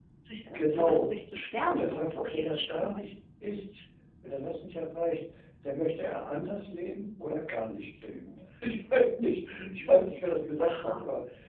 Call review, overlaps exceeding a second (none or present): present